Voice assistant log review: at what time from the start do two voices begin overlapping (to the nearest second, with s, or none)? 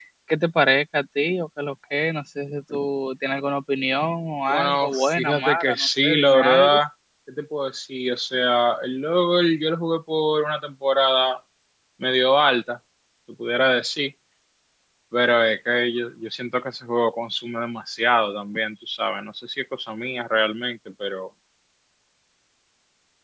4 s